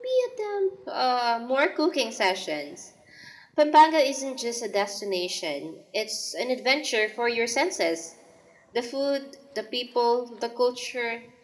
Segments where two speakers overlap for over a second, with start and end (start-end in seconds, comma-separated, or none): none